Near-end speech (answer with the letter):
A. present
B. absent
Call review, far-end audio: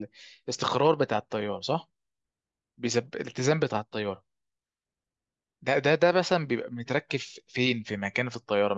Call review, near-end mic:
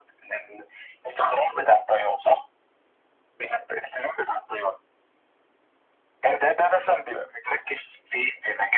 B